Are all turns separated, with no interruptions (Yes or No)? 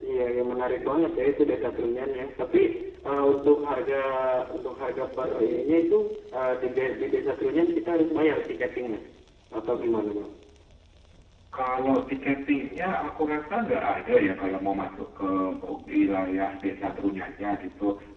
Yes